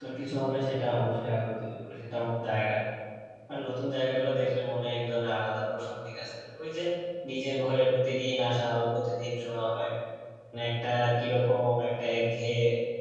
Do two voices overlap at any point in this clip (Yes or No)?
No